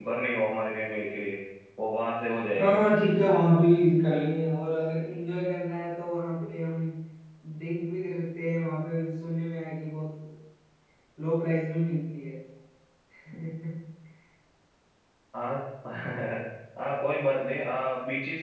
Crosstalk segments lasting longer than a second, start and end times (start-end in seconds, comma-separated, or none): none